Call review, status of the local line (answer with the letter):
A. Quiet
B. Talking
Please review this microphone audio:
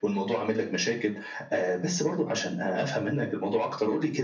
A